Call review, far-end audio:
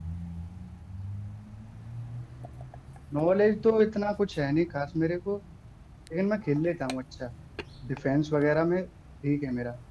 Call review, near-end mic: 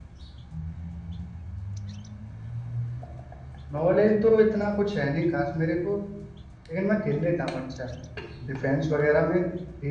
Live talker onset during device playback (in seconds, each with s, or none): none